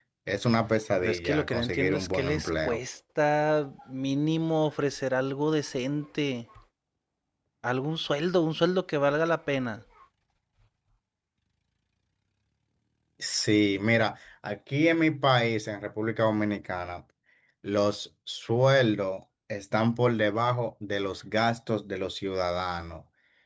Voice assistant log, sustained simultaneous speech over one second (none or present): present